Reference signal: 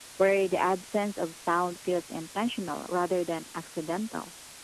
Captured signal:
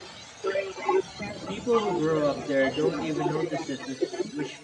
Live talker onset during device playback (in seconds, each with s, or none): 1.4 s